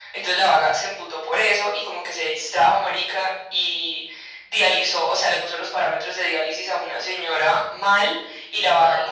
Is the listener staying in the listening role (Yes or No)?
Yes